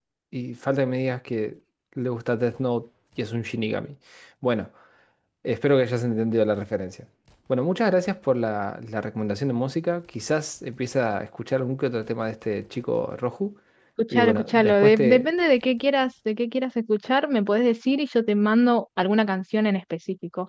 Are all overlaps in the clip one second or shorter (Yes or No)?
No